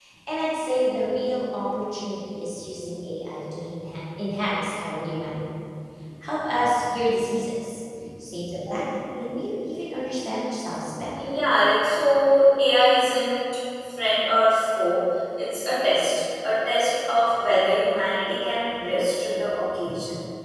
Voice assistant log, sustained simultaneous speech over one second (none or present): none